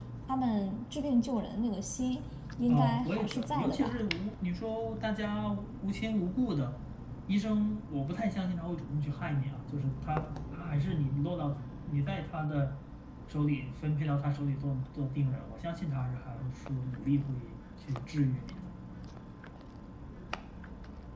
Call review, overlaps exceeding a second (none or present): present